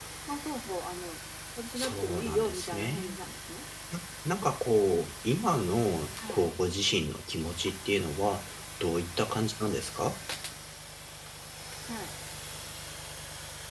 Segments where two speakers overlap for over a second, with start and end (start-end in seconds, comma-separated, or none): 1.8-3.1